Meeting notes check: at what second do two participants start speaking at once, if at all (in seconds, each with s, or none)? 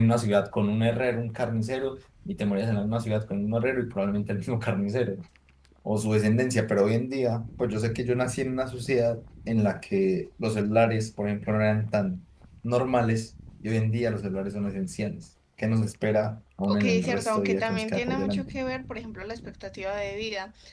16.7 s